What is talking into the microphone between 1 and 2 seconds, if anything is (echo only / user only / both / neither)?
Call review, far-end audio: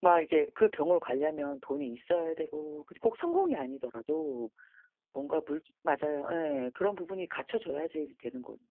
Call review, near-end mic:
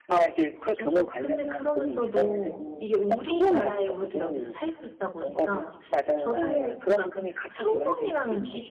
both